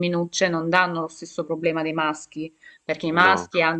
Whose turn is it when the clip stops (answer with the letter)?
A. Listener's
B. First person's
B